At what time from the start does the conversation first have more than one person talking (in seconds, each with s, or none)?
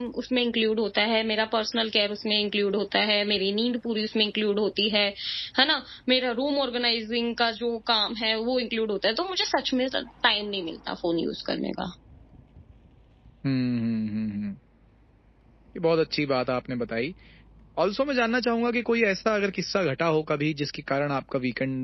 none